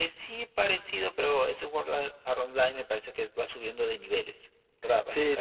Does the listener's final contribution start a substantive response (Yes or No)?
Yes